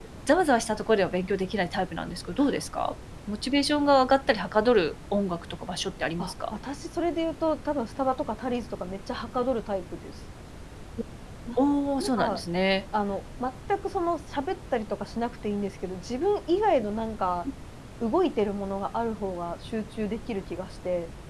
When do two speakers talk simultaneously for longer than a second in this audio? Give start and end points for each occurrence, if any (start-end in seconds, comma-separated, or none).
none